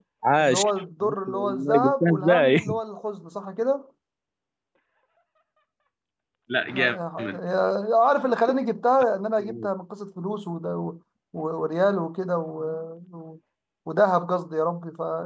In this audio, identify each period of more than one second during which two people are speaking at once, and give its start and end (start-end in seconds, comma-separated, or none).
1.3-2.6